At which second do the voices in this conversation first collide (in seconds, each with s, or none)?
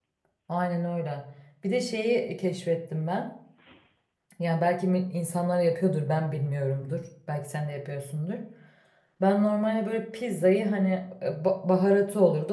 none